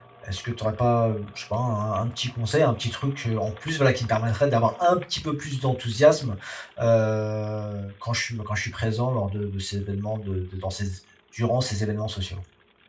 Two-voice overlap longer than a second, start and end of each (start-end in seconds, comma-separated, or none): none